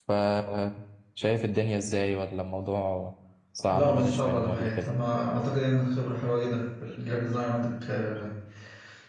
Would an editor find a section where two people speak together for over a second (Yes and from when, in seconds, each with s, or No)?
Yes, from 3.7 s